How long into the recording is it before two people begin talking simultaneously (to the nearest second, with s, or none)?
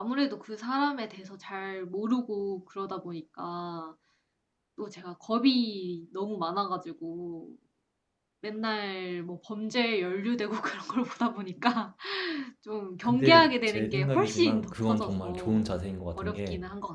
13 s